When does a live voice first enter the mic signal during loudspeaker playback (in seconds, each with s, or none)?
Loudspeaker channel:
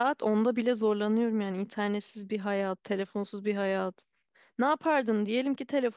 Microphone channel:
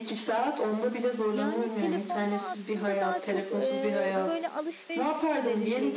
1.3 s